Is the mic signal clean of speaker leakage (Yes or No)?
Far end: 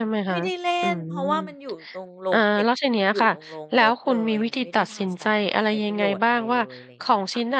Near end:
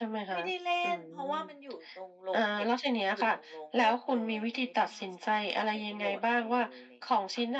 No